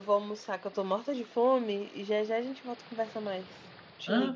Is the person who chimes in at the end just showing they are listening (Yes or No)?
No